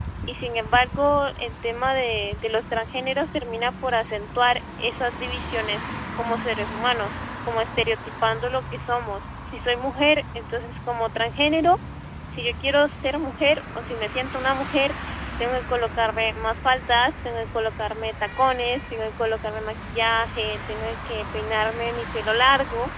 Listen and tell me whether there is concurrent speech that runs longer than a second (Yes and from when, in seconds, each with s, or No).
No